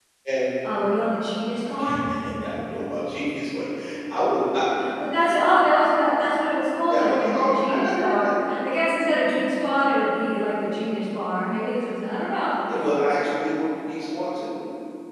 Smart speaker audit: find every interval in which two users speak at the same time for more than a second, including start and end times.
6.9-8.3

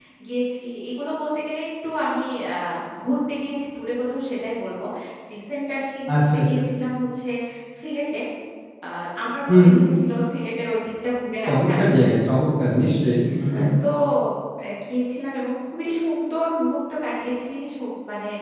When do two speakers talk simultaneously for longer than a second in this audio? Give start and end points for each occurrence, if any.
none

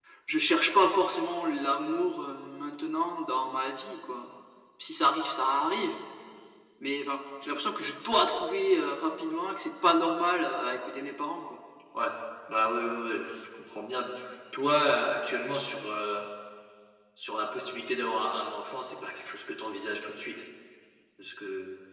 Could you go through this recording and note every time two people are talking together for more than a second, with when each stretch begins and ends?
none

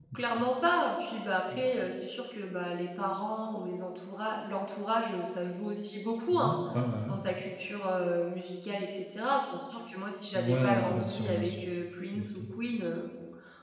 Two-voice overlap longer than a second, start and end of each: 10.3-11.6

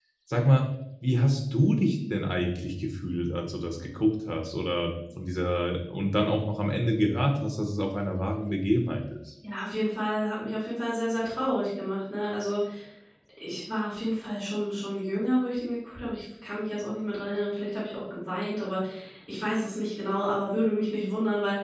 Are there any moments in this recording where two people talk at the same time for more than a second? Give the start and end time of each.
none

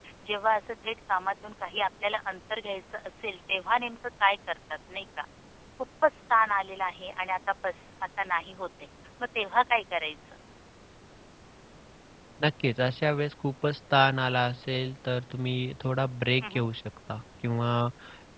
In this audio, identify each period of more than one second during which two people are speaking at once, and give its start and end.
none

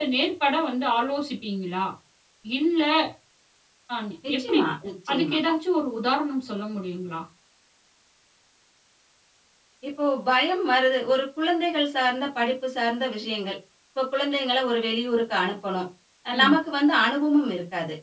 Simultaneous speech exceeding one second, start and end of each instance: none

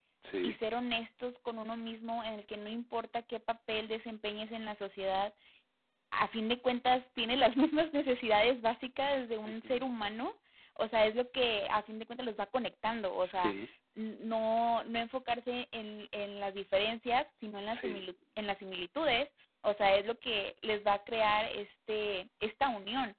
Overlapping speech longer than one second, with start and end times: none

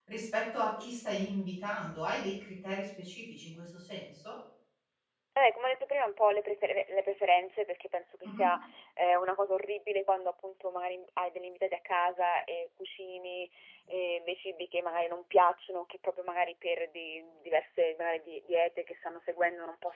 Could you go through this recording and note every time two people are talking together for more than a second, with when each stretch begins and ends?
none

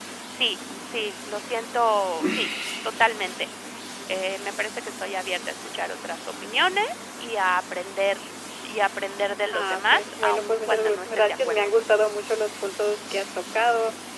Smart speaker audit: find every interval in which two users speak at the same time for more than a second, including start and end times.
9.5-12.1

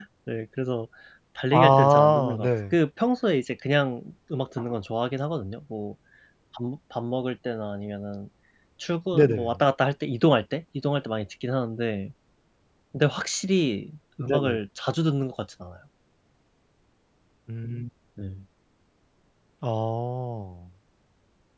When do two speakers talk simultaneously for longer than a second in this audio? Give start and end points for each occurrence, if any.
1.5-2.8

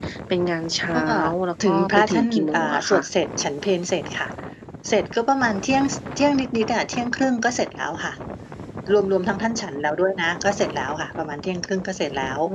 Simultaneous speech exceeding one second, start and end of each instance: 1.7-3.0

